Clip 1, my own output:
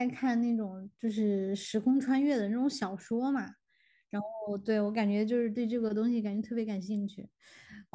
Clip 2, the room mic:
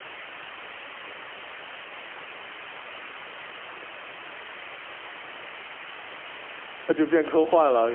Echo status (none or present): none